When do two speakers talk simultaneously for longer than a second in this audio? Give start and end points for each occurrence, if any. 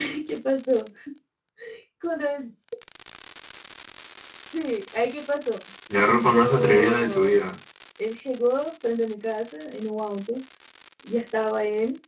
6.2-7.4

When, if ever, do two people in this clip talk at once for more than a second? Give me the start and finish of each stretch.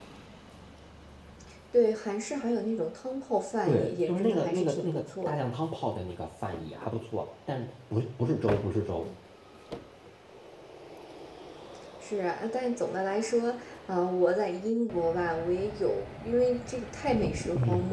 3.6-5.4

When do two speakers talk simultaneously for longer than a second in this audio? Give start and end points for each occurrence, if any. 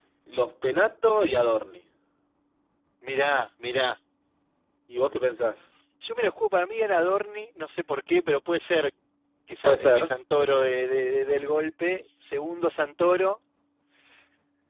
none

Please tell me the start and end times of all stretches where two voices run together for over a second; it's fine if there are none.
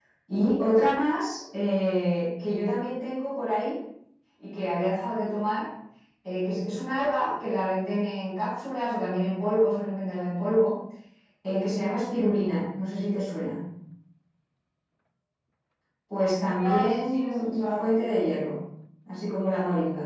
16.6-18.0

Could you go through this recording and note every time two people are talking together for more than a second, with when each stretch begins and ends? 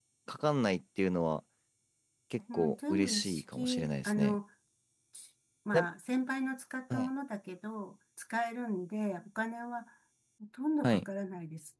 2.5-4.4

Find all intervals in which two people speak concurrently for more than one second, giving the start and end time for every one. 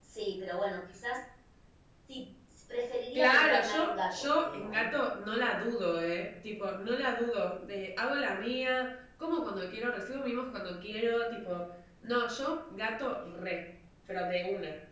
3.1-4.9

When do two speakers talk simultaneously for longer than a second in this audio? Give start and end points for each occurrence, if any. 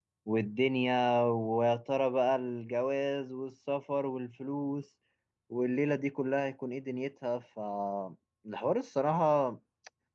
none

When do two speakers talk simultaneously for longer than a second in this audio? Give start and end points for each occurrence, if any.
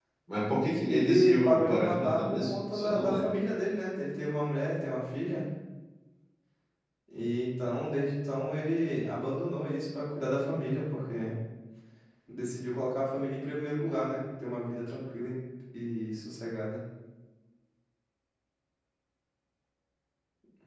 0.9-3.4

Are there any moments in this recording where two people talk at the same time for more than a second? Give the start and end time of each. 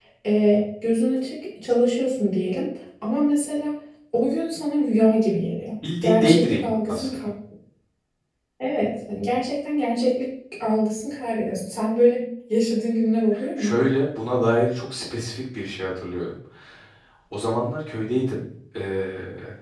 6.0-7.3

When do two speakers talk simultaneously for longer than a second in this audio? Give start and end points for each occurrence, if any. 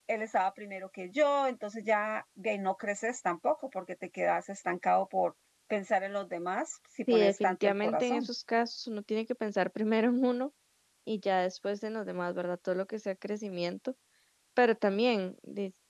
7.1-8.3

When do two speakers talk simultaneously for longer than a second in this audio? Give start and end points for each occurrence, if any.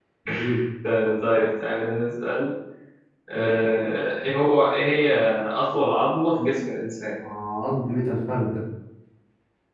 none

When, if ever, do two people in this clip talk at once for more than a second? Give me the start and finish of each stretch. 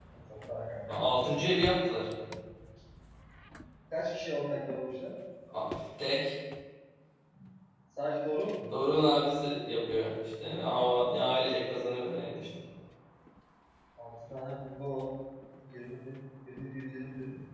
none

